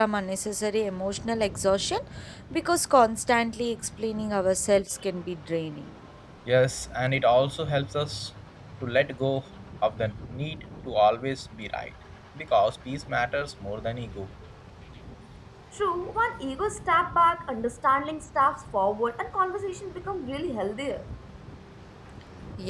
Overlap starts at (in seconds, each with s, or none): none